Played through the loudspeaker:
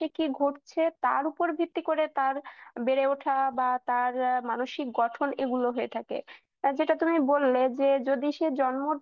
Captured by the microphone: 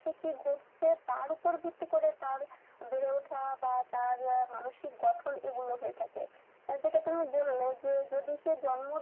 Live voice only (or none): none